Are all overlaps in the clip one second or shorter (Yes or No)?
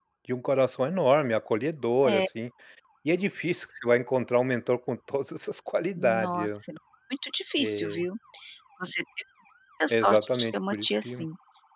No